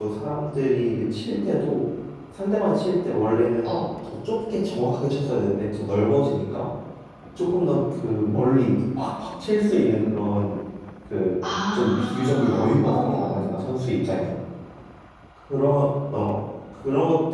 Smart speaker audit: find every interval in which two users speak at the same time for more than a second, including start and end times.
11.7-13.4

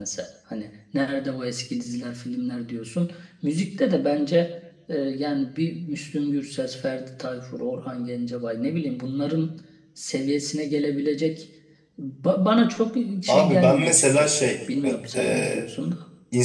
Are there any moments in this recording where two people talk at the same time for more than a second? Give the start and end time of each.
13.3-14.5

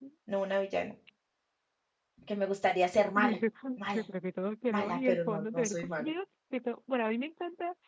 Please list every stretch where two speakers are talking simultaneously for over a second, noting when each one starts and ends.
4.7-6.1

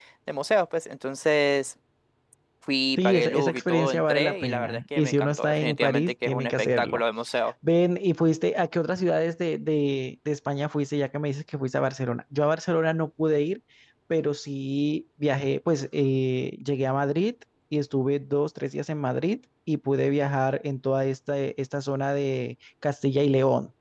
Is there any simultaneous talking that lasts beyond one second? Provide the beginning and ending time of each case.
3.0-7.0

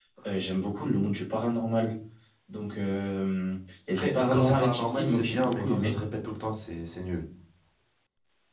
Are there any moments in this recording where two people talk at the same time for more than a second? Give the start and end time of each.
3.9-6.0

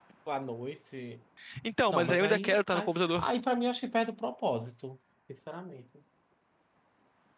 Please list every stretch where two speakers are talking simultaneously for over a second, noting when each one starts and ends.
1.9-3.3

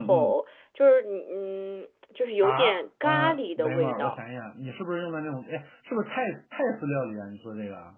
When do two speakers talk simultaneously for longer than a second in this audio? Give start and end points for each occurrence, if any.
2.4-4.2

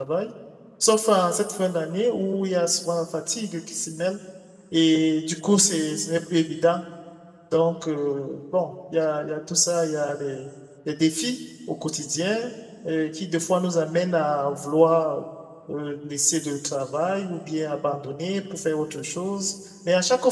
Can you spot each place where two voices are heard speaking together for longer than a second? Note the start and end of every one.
none

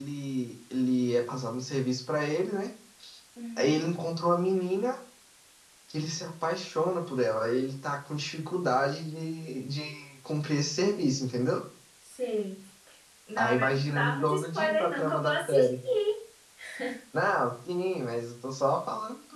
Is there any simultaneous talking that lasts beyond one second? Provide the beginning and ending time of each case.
13.4-15.7

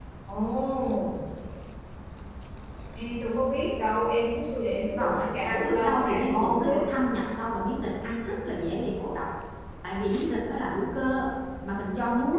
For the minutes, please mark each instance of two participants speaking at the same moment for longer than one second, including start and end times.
5.0-6.9

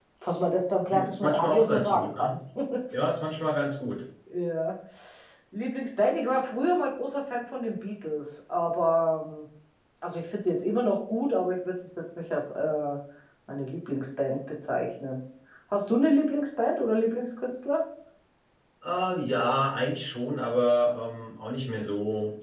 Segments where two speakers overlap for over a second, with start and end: 0.9-2.3

